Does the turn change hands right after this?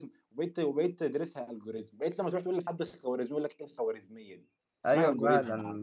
Yes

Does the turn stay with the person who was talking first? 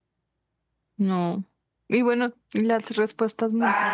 No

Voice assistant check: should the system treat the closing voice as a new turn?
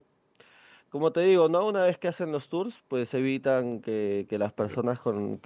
No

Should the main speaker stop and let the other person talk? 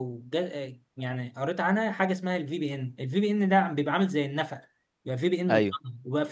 No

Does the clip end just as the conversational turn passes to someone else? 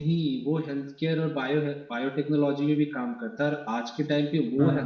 No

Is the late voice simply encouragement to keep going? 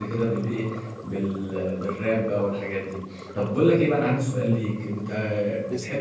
Yes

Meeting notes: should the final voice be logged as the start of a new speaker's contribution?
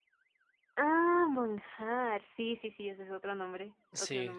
Yes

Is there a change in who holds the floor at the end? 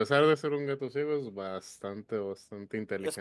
Yes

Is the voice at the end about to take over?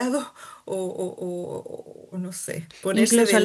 No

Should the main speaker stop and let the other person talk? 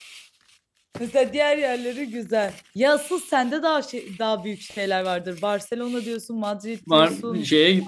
Yes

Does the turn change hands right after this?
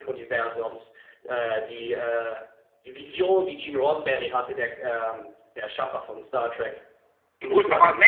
Yes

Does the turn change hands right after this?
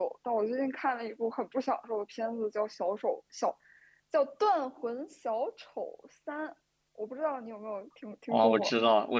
Yes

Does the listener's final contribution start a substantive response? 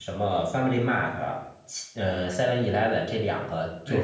No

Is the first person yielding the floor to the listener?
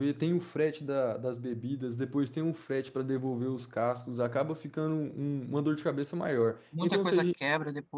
Yes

